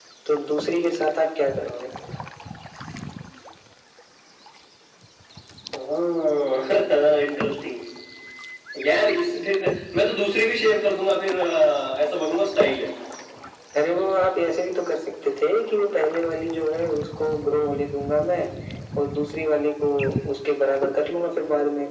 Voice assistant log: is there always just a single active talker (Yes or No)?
Yes